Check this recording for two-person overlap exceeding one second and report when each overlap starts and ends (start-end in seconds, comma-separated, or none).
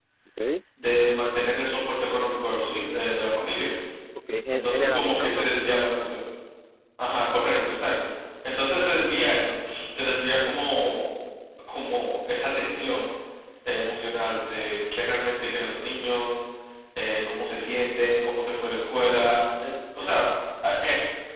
4.5-5.7